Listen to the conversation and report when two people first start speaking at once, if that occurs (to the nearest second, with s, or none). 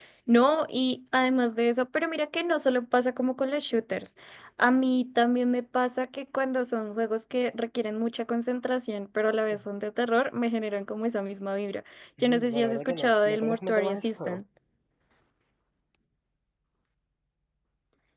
12 s